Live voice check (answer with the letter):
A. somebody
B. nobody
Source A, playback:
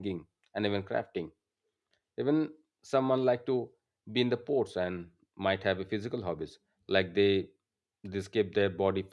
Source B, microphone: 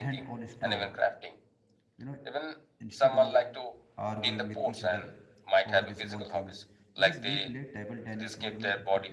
A